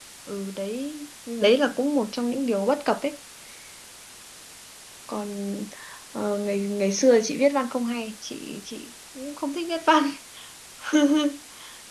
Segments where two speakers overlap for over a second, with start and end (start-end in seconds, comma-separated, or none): none